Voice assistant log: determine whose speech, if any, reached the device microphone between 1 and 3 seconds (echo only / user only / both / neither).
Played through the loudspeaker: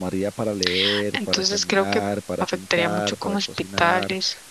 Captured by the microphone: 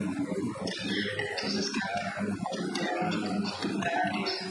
echo only